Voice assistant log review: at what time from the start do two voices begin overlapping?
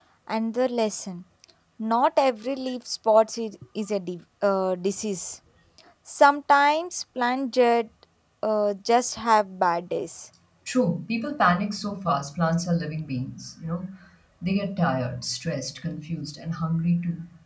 none

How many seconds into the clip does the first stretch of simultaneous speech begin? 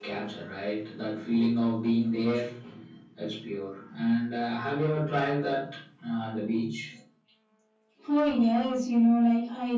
none

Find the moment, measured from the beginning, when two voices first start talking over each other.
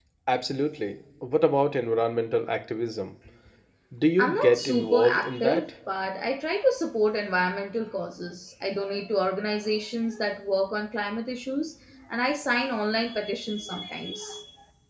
4 s

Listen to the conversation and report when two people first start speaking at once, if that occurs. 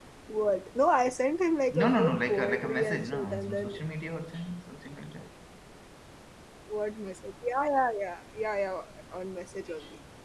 2 s

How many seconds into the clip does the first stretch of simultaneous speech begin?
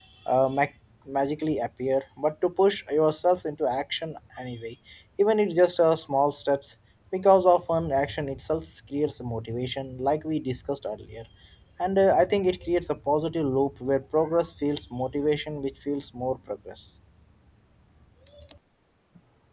none

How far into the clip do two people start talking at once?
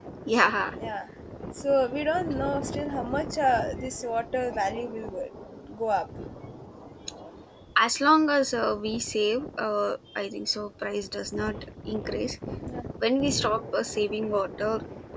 none

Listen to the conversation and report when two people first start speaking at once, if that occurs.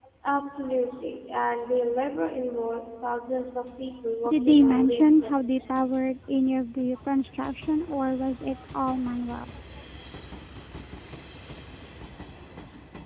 4 s

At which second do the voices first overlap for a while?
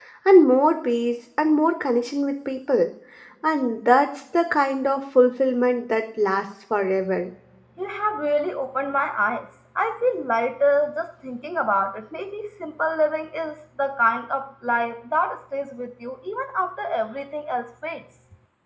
none

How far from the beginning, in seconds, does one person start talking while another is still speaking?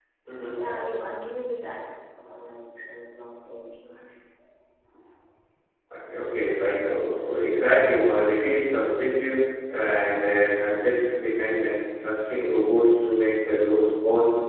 none

